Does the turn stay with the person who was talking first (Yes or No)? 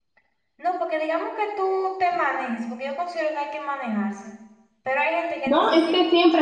No